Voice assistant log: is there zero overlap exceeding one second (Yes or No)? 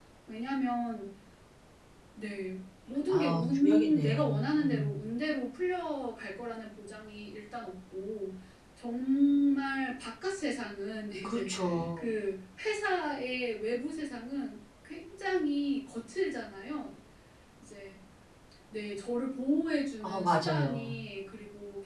No